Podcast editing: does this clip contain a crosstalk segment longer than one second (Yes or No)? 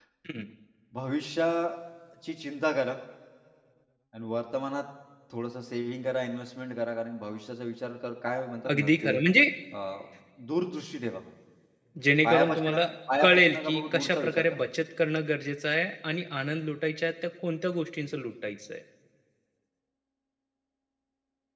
Yes